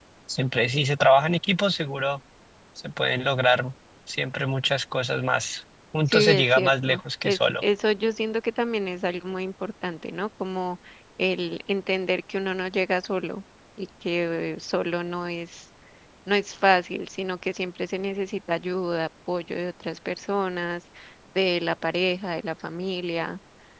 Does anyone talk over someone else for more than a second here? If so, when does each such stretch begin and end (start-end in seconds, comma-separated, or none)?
6.1-7.6